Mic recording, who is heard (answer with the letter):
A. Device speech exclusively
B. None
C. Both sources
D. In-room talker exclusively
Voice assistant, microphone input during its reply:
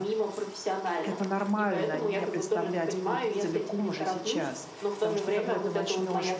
C